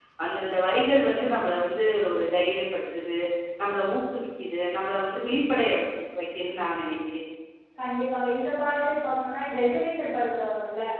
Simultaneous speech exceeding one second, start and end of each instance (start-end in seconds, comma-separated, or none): none